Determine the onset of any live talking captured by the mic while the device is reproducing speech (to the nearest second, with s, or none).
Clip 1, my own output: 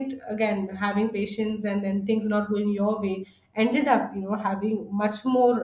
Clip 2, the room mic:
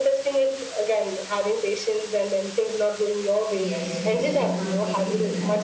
4 s